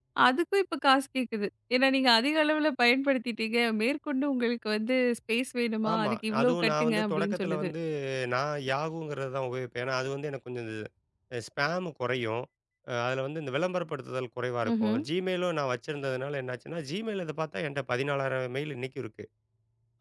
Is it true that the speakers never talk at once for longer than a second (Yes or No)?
No